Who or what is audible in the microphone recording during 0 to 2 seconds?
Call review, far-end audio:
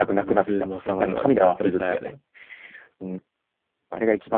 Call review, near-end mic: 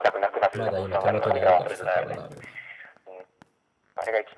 both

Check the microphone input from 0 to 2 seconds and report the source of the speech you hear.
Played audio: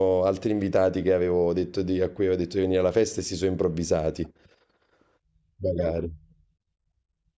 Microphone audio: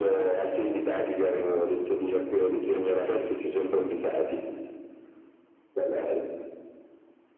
echo only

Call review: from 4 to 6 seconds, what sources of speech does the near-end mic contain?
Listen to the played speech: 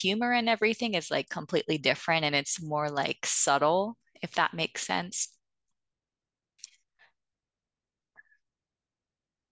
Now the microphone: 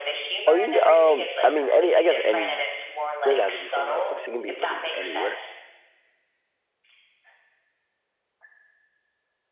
both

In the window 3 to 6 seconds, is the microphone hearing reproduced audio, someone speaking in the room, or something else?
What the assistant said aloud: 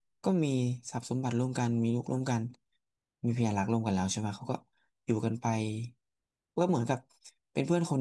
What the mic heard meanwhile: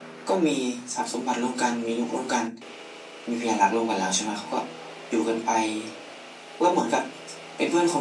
echo only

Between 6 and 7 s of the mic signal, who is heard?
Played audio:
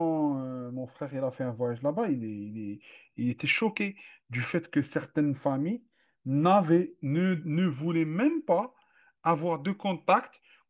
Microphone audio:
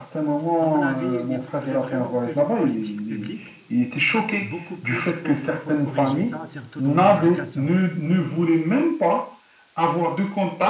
both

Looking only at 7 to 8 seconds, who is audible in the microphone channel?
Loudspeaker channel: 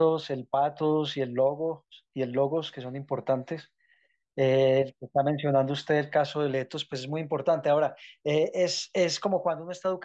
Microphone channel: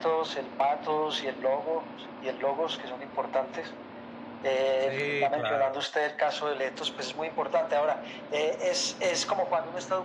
echo only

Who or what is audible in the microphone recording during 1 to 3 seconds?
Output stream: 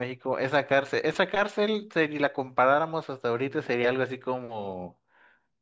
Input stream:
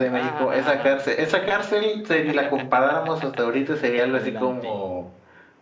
both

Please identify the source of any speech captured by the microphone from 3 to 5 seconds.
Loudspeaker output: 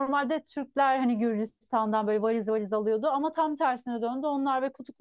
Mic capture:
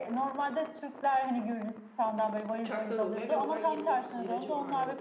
both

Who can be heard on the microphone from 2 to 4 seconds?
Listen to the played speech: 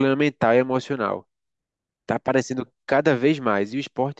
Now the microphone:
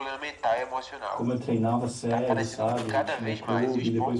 both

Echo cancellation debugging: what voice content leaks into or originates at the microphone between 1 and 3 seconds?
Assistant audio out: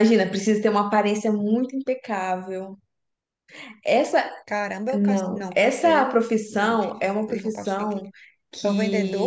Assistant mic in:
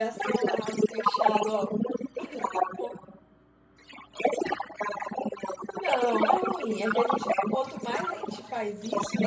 both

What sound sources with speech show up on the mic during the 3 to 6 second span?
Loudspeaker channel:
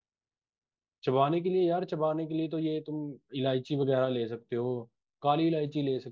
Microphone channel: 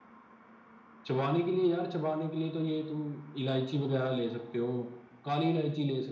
echo only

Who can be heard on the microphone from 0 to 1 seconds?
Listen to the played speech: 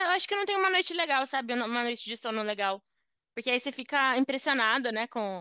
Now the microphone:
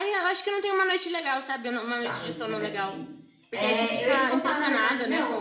echo only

